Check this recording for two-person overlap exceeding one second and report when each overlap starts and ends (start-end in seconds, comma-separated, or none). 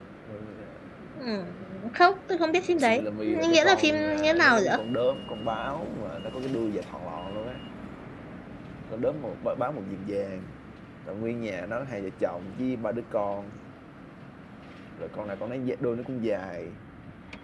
2.7-4.8